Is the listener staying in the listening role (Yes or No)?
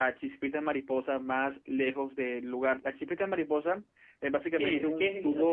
No